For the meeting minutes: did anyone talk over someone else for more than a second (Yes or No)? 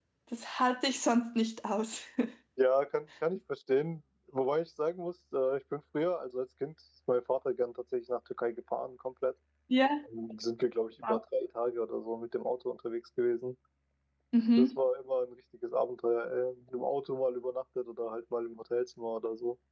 No